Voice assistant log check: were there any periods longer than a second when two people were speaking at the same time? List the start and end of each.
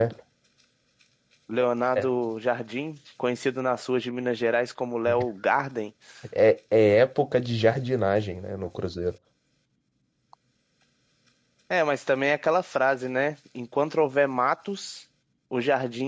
none

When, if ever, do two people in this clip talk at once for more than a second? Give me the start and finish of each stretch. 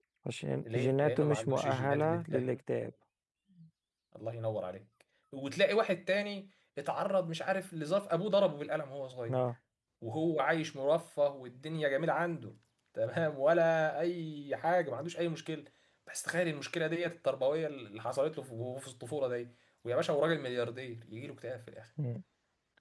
0.7-2.6

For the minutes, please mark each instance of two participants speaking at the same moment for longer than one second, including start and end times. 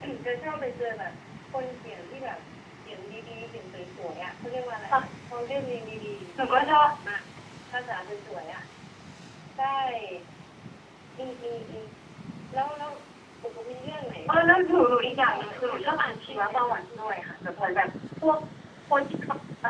15.0-17.1

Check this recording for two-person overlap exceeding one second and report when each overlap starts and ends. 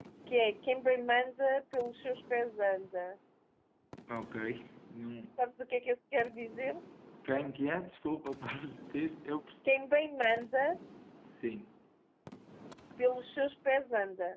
none

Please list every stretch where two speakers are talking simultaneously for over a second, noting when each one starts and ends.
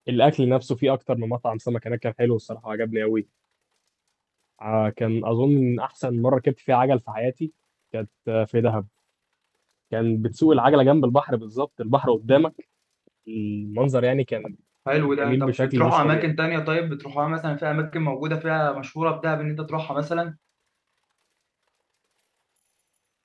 15.1-16.3

